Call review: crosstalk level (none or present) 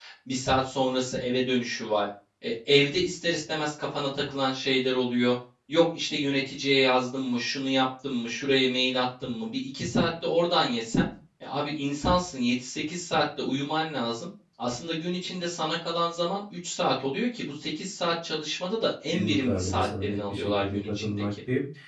present